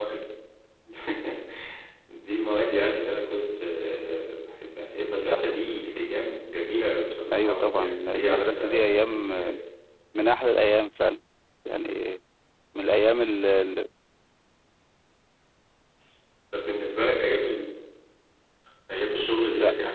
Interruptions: present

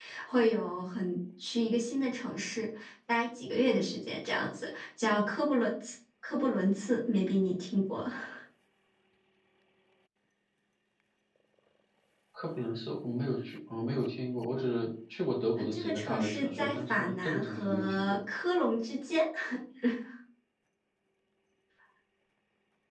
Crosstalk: present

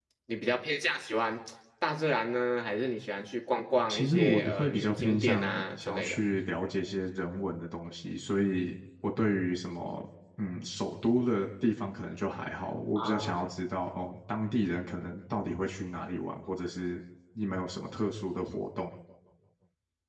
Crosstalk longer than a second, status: present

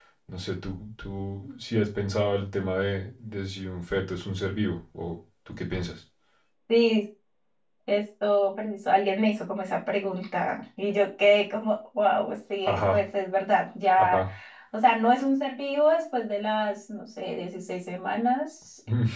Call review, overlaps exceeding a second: none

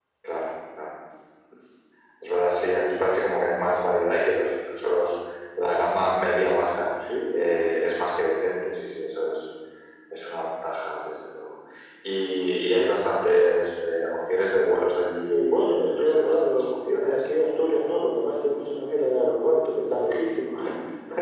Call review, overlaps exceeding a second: present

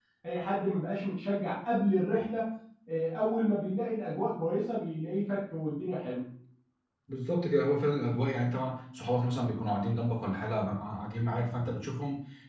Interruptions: none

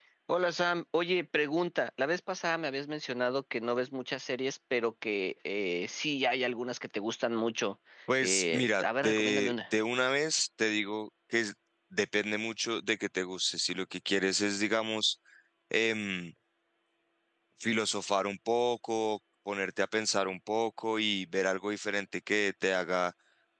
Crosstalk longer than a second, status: present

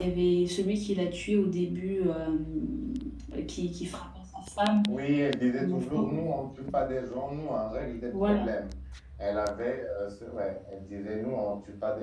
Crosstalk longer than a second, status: none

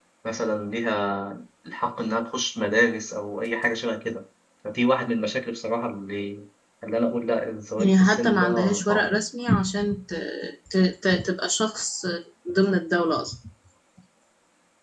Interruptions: present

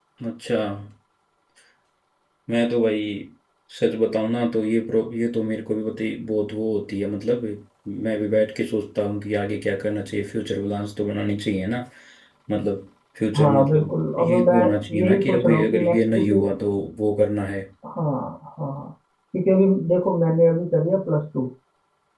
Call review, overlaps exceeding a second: present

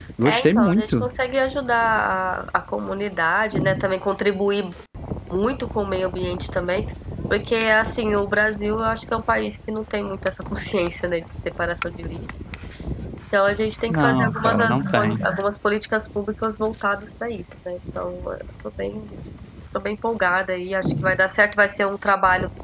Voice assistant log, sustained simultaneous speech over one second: present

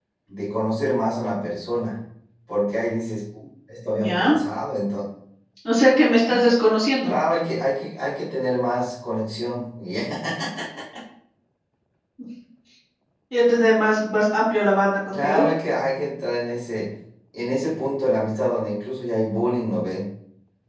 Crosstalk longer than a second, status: none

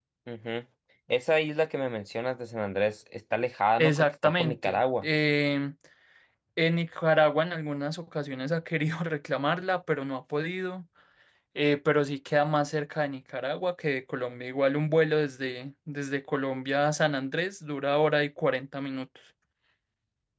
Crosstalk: present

